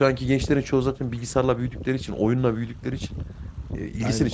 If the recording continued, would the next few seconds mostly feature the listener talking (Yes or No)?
No